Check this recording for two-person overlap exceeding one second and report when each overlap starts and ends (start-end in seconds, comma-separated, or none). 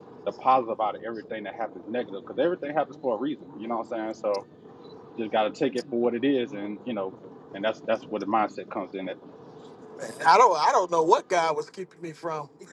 none